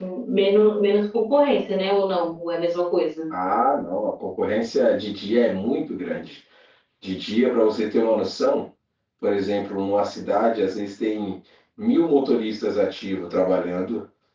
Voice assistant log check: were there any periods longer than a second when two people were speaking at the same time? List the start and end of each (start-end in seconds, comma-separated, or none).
none